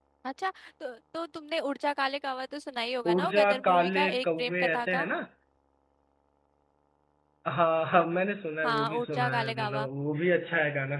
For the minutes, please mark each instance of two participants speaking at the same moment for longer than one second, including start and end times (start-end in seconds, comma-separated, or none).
3.1-5.1, 8.6-9.9